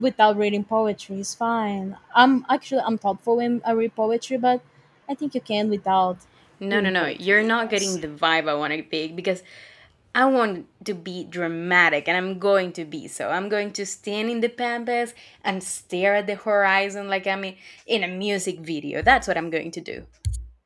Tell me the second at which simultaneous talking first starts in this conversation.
6.7 s

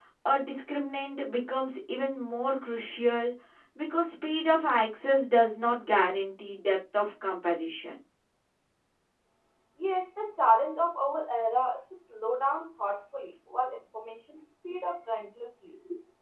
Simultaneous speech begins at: none

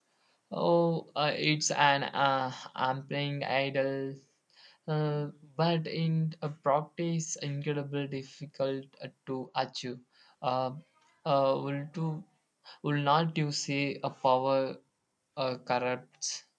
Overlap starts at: none

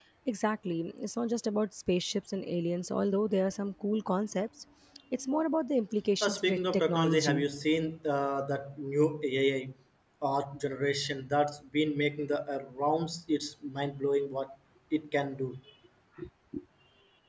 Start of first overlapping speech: 6.2 s

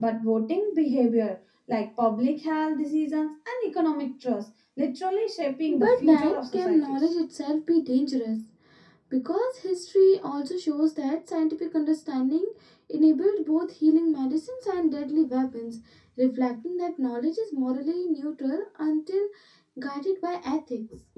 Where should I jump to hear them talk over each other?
5.7 s

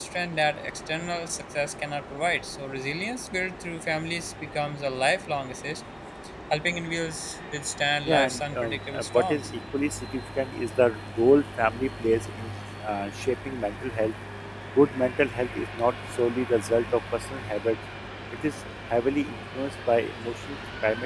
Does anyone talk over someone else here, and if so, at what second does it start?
8.1 s

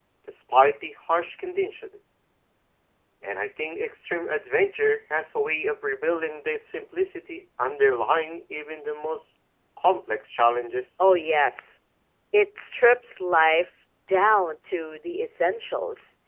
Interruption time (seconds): none

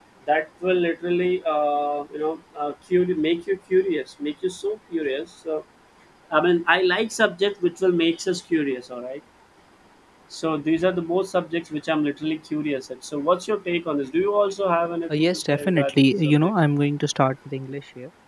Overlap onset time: 15.1 s

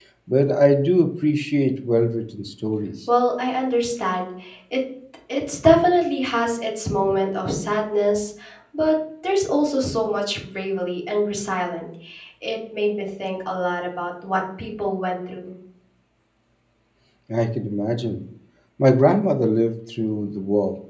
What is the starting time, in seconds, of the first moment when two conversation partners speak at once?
none

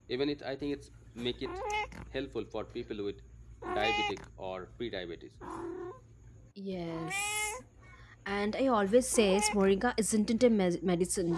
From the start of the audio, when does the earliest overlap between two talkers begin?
none

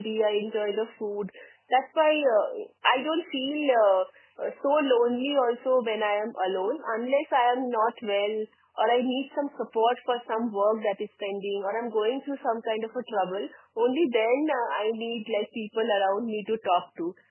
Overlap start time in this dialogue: none

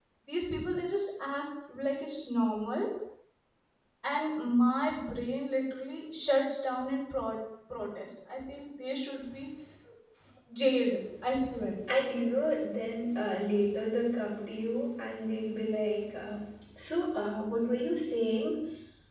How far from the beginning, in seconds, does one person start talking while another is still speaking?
none

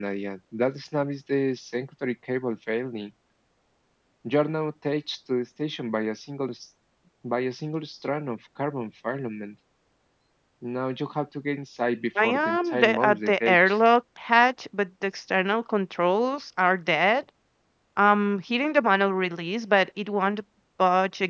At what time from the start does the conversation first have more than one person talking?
12.2 s

